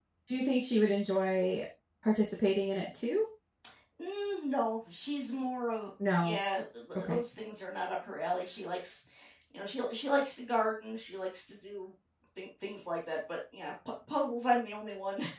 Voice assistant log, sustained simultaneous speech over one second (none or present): none